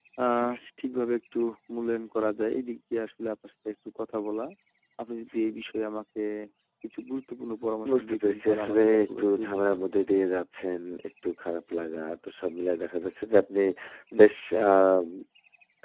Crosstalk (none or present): present